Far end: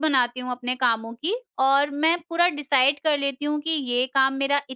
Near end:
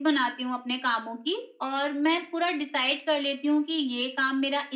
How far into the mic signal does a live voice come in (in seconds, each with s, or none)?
none